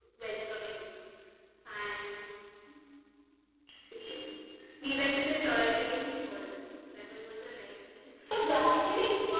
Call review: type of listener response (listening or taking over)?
taking over